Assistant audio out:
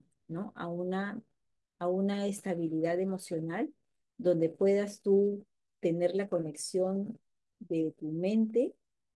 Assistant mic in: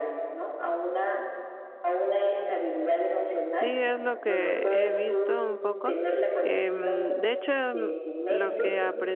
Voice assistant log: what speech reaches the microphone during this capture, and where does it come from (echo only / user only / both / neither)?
both